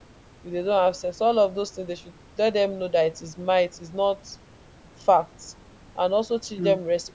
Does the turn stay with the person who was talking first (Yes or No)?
Yes